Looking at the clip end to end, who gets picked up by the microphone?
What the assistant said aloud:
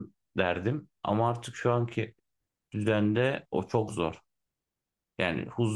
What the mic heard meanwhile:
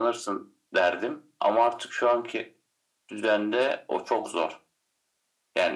echo only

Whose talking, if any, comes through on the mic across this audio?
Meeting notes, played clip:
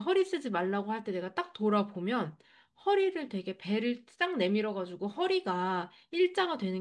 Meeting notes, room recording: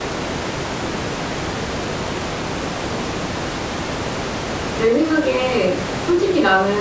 user only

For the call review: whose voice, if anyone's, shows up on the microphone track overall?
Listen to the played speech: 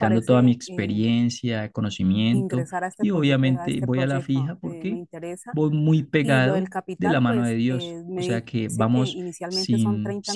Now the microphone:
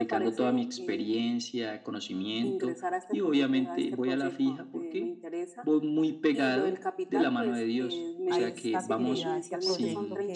both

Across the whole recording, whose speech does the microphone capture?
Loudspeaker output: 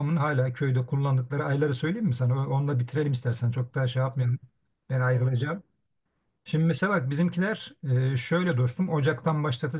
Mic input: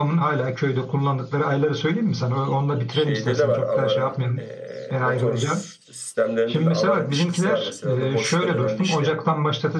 both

